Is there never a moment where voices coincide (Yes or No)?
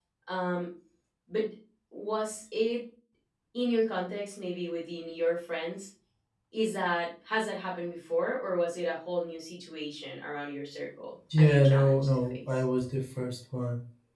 No